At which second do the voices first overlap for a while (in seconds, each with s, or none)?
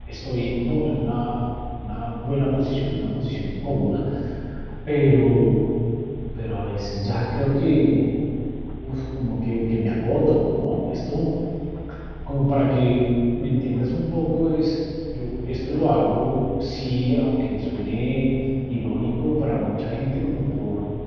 none